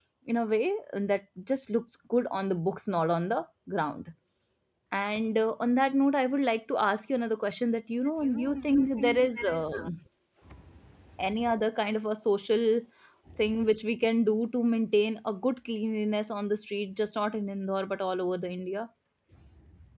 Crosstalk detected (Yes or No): Yes